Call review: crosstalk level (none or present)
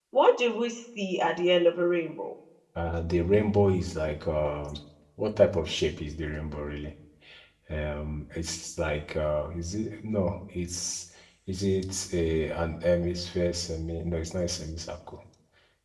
none